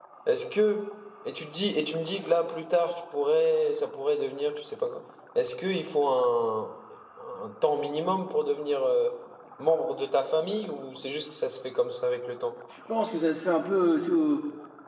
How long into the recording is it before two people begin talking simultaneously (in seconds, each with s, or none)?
none